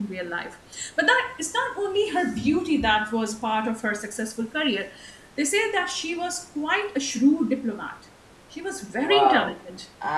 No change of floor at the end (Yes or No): No